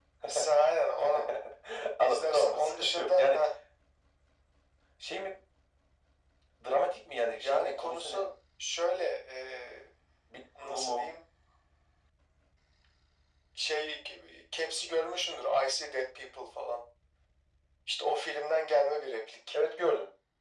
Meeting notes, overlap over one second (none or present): present